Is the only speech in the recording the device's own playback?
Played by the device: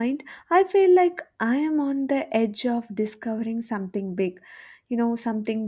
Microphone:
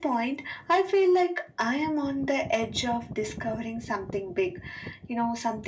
Yes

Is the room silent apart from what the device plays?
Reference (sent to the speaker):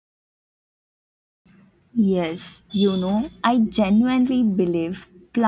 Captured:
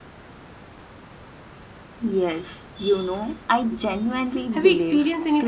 No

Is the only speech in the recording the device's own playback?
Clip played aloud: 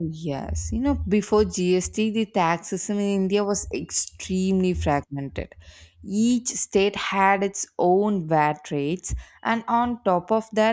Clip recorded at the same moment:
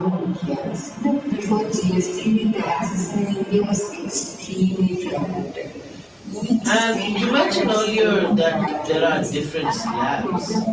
No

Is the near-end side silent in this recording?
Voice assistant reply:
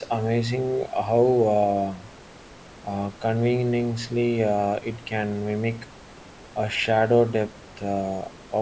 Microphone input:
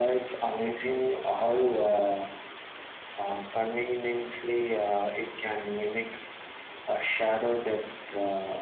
Yes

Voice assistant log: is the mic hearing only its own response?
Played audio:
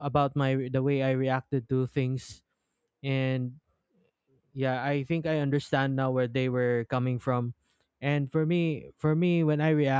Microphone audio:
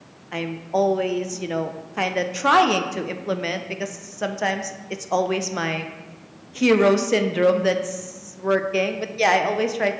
No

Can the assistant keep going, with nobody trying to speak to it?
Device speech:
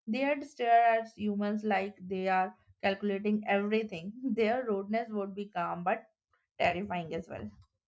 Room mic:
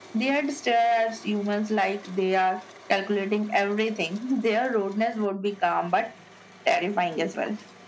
Yes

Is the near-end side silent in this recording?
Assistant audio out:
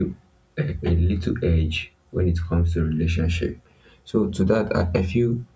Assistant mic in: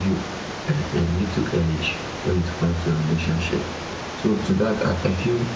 Yes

